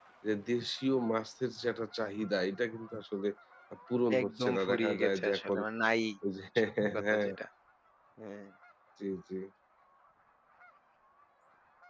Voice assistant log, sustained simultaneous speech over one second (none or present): present